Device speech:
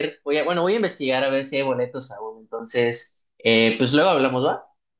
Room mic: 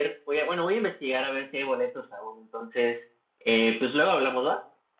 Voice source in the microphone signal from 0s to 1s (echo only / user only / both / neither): echo only